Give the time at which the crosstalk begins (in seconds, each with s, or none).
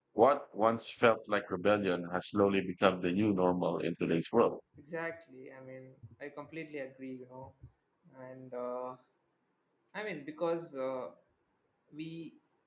none